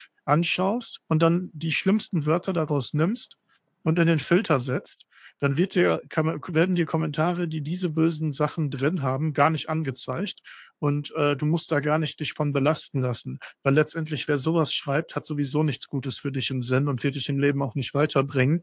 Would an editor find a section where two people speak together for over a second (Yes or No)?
No